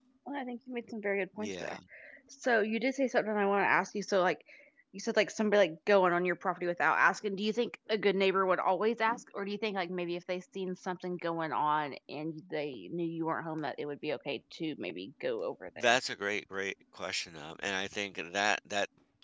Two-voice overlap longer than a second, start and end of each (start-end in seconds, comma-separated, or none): none